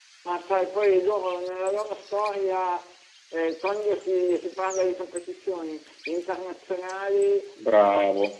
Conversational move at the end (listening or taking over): listening